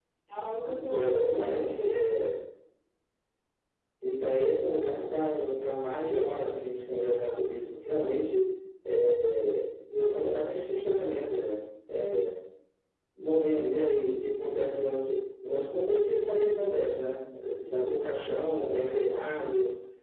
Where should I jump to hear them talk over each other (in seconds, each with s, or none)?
0.9 s